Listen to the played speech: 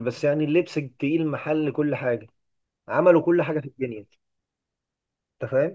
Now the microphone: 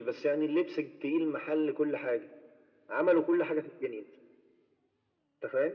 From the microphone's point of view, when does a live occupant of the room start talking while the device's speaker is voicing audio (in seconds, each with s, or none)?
none